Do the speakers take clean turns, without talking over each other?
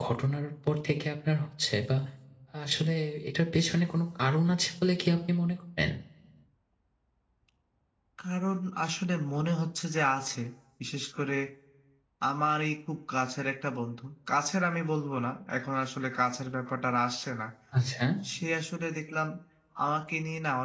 Yes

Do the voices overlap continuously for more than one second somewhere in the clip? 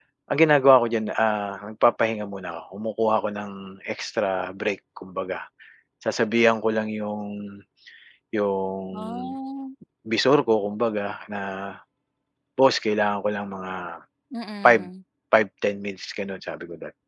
No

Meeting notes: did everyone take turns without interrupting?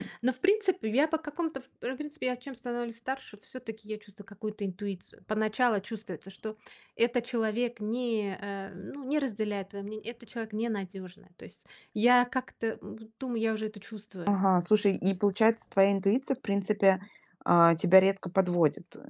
Yes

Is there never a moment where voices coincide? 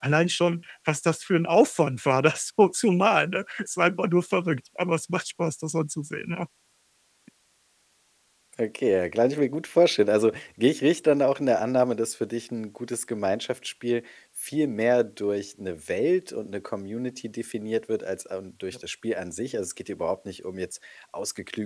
Yes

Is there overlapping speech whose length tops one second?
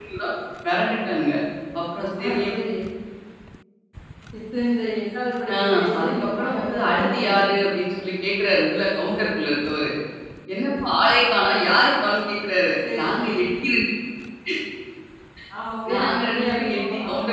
Yes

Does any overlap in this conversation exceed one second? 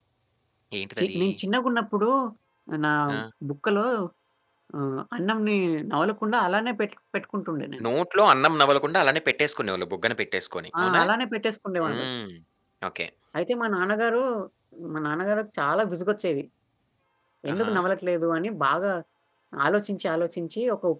No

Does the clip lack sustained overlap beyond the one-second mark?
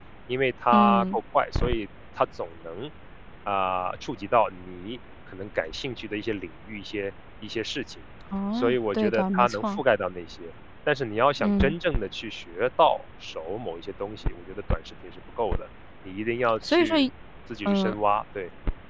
No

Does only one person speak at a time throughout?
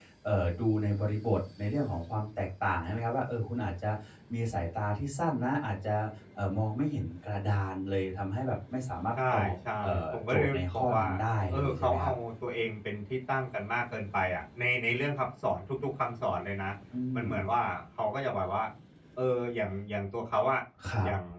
No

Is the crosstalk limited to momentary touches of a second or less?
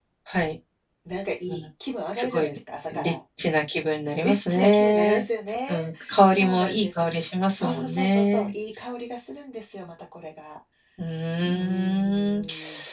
No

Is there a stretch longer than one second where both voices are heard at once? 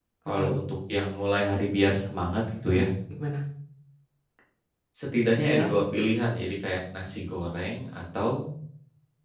No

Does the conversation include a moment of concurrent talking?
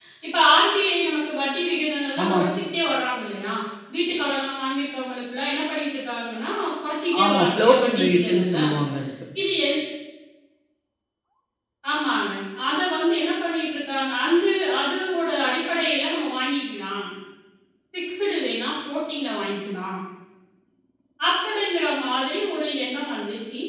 Yes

